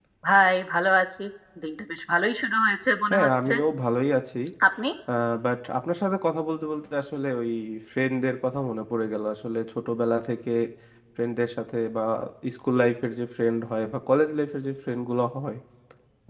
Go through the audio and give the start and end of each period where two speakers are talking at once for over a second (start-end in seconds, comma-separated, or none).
none